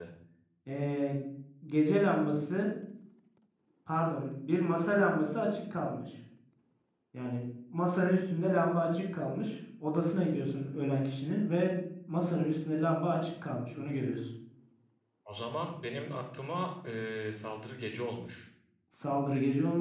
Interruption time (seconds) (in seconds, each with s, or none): none